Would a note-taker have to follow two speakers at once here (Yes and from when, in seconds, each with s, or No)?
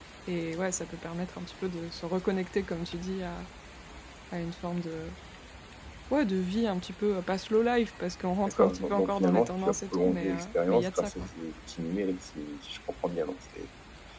Yes, from 8.5 s